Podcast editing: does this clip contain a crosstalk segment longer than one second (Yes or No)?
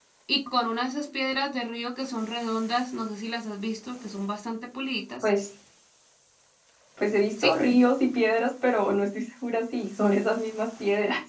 No